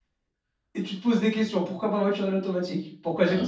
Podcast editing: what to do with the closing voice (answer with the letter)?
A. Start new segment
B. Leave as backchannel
B